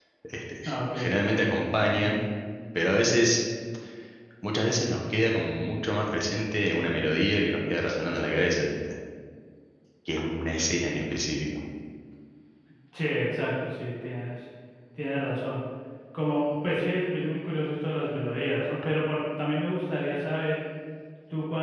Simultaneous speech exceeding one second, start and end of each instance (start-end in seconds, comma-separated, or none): none